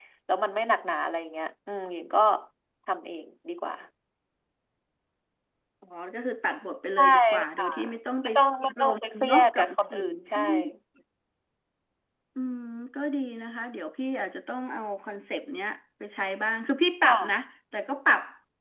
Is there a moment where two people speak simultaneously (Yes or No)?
Yes